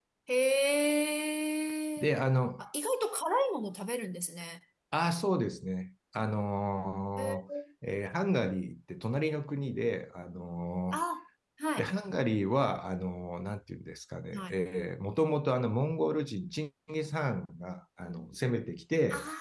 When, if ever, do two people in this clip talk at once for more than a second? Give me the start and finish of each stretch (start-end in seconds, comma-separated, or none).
none